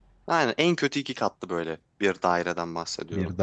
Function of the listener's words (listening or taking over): listening